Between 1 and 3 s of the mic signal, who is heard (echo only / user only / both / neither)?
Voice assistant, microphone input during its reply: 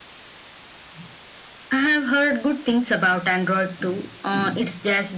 echo only